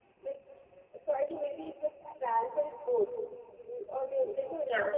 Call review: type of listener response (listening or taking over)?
listening